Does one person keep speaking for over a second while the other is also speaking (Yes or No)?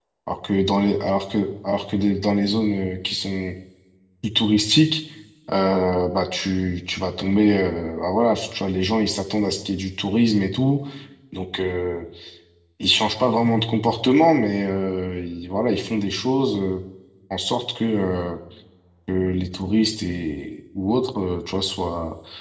No